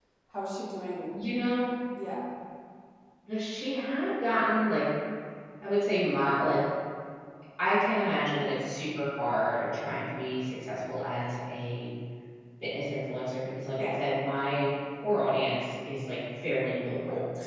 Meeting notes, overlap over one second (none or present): none